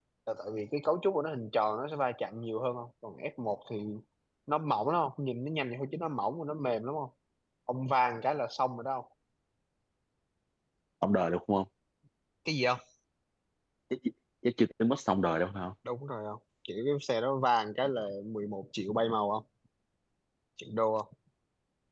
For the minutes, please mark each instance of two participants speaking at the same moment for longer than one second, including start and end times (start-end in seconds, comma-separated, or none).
none